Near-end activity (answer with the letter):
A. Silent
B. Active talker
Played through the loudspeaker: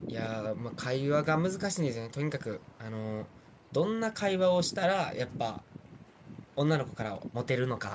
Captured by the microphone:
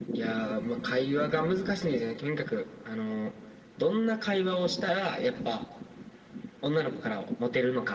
A